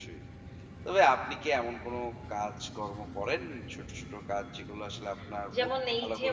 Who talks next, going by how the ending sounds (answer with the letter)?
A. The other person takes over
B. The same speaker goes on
A